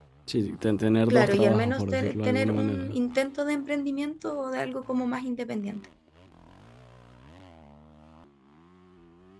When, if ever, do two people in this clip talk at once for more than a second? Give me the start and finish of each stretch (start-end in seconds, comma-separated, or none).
1.1-3.0